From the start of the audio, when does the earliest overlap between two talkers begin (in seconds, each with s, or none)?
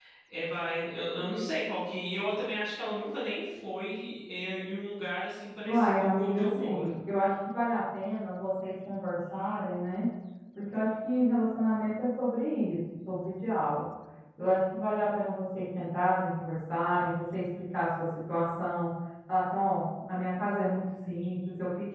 5.7 s